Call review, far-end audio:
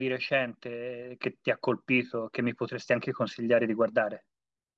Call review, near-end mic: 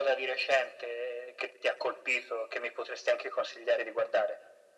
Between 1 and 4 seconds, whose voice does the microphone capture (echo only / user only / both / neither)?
echo only